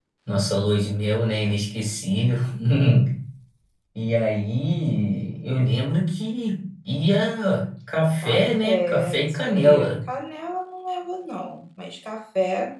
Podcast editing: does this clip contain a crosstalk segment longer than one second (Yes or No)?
Yes